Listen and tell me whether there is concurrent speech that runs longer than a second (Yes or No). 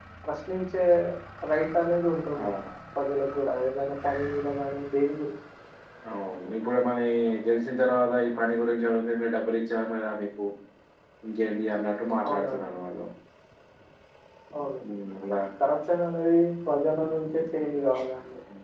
No